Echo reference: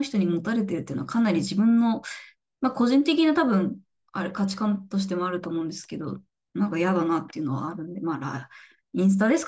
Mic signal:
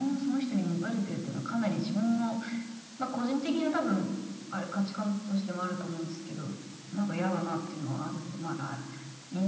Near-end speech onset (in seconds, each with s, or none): none